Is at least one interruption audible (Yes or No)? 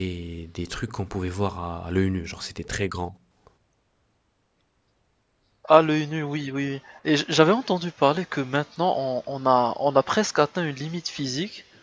No